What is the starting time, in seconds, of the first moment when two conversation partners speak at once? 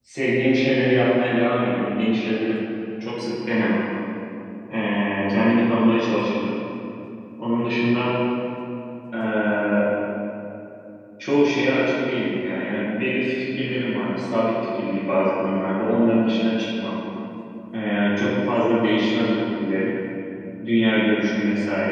none

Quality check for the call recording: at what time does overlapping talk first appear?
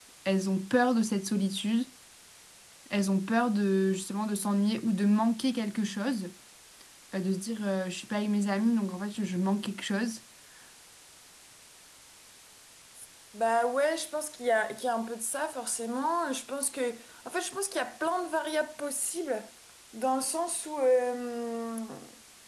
none

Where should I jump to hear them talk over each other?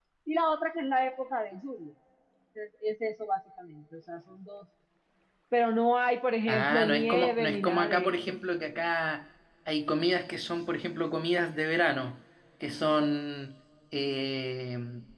6 s

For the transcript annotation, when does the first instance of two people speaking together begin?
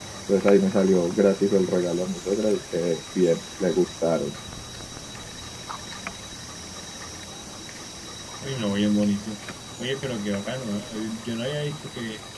none

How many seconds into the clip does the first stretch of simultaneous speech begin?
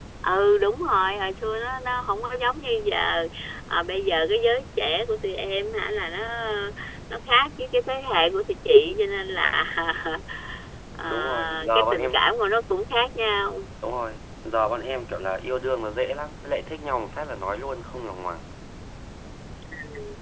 11 s

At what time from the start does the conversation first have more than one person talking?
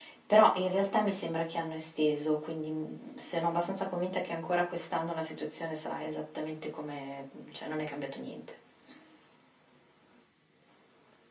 none

